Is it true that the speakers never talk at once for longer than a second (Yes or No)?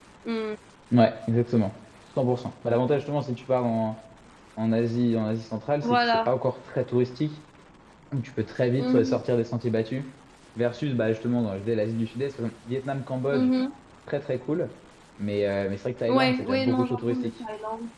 No